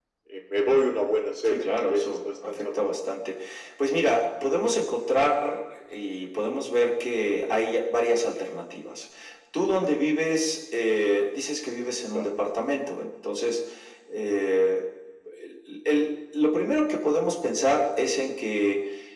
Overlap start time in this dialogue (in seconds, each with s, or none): 1.4 s